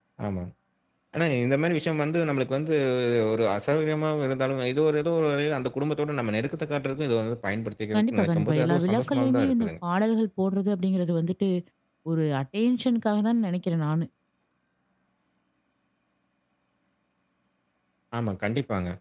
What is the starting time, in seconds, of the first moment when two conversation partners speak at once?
8 s

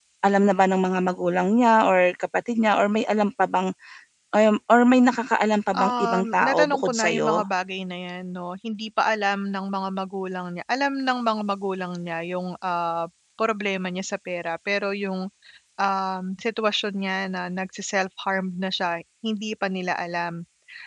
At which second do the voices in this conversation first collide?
6 s

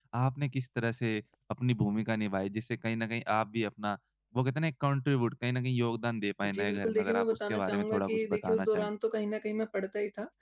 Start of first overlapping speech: 6 s

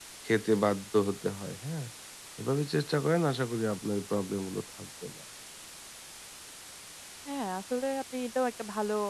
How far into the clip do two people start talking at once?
none

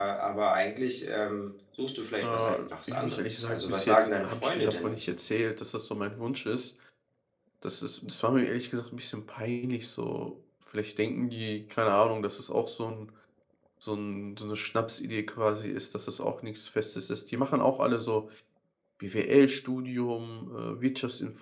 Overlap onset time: 2 s

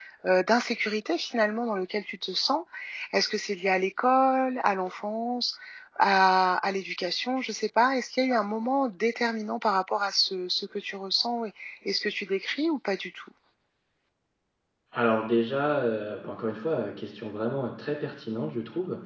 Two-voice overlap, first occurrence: none

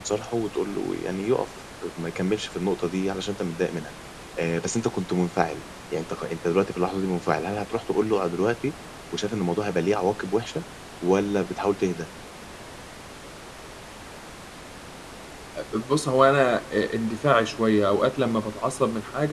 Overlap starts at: none

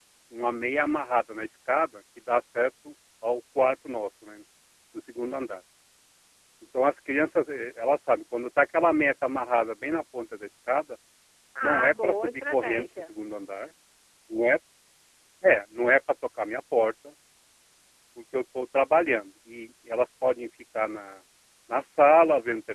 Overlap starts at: 12 s

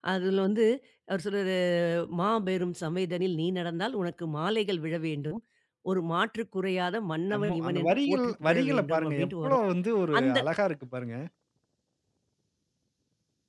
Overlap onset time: 7 s

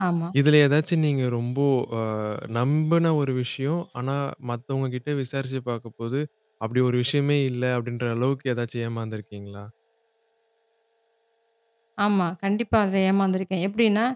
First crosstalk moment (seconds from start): none

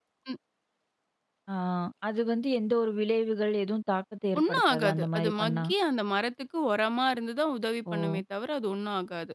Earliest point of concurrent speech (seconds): 4 s

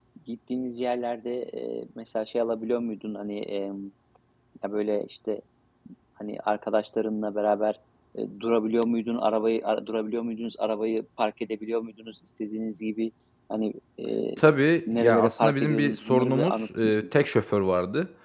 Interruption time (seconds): 15 s

